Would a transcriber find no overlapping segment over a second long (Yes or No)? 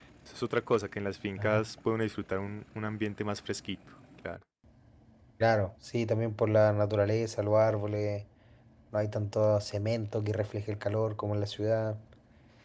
Yes